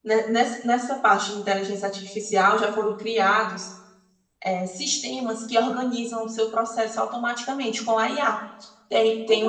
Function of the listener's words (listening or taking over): listening